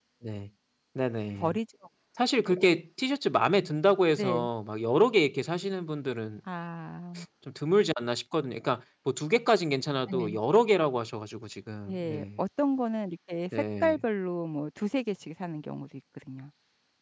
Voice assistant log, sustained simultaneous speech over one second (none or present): none